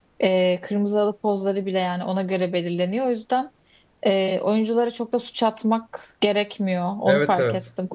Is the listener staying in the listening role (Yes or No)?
No